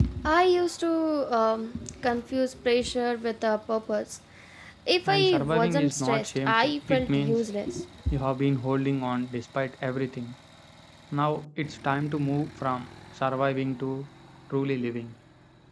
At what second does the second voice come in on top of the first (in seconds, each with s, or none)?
5.1 s